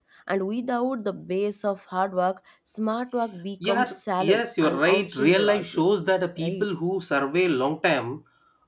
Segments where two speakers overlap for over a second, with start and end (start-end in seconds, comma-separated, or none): 4.3-5.8